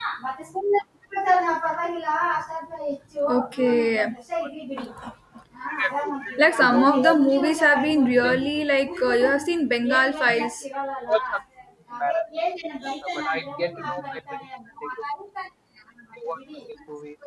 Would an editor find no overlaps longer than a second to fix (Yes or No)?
No